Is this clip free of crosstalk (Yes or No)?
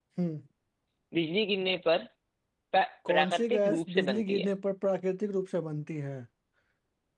No